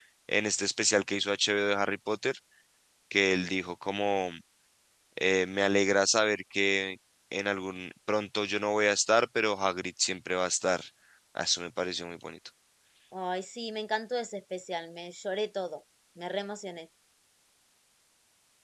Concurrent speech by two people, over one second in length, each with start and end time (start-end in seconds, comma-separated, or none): none